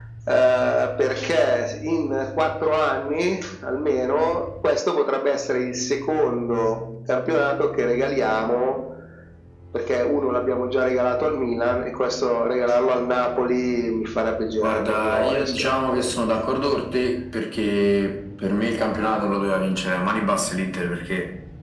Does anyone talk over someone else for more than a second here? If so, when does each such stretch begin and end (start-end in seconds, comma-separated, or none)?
14.6-16.2